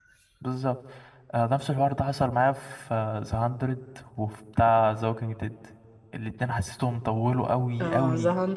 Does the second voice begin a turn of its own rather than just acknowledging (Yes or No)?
Yes